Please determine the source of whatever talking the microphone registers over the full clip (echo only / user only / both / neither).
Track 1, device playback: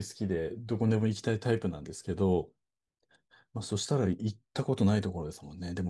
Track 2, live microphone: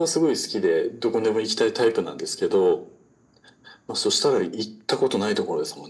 echo only